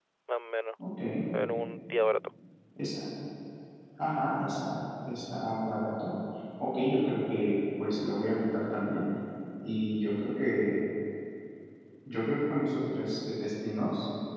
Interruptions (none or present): none